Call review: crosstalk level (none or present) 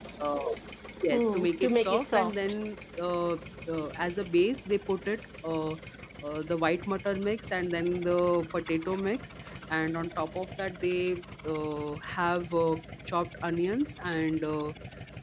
present